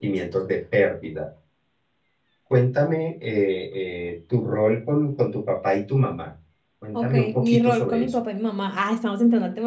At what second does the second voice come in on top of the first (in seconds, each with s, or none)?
6.9 s